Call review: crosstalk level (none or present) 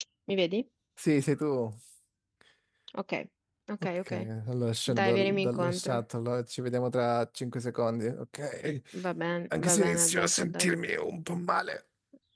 present